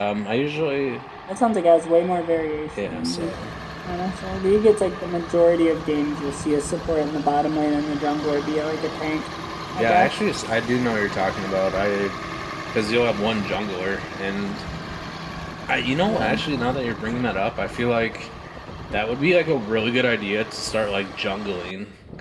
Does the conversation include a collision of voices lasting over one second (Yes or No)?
No